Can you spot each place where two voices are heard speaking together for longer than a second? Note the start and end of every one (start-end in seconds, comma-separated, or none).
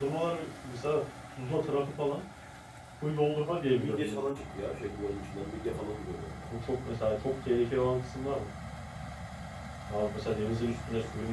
none